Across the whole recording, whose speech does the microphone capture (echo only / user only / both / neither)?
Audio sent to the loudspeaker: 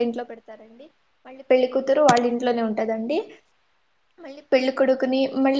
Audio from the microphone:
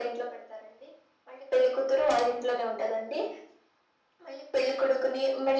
echo only